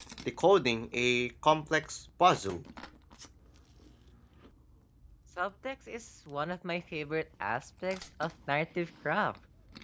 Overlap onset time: none

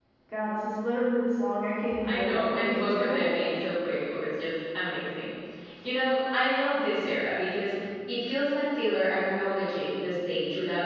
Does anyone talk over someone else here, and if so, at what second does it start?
1.9 s

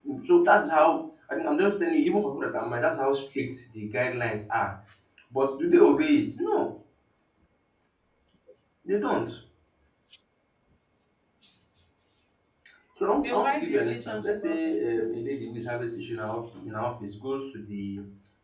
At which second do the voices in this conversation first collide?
13.2 s

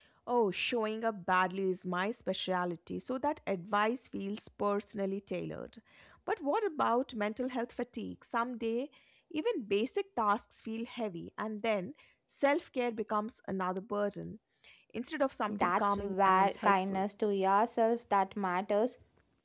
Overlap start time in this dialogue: 15.5 s

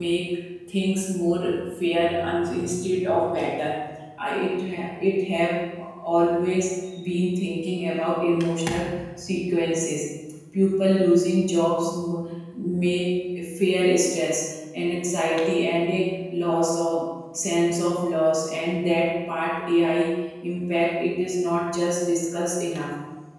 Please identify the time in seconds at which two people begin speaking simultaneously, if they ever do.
none

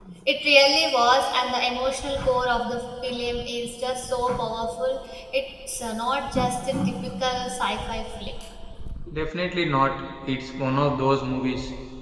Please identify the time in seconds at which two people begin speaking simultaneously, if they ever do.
none

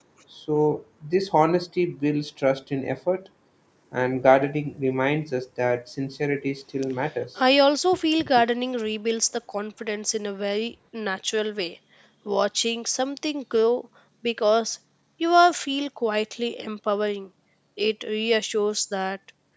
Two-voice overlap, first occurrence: none

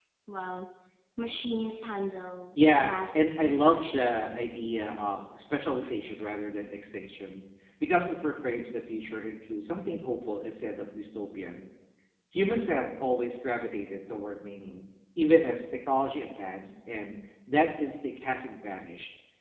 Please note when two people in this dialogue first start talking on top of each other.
2.8 s

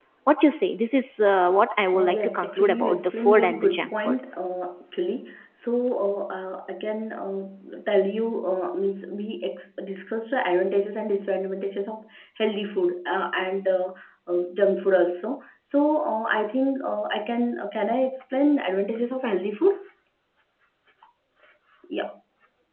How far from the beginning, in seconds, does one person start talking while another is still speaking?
1.9 s

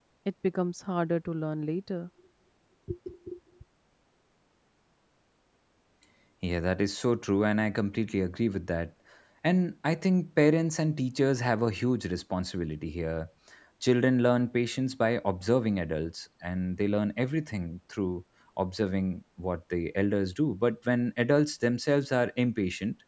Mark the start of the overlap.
none

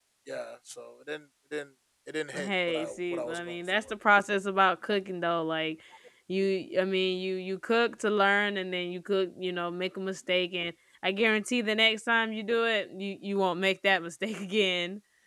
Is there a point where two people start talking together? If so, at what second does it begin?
2.3 s

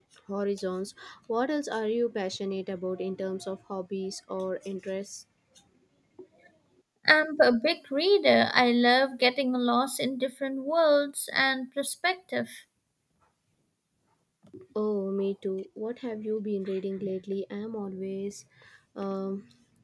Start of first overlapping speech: none

